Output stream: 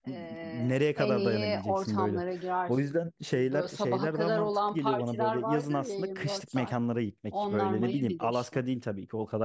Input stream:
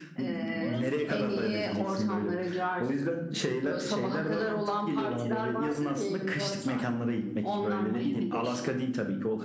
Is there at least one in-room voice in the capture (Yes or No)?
Yes